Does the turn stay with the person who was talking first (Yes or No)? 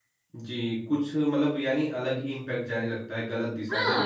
No